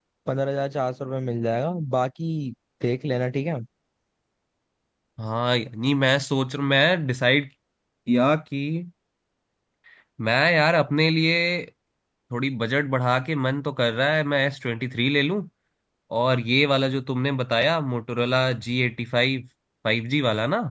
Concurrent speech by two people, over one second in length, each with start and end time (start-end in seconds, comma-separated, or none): none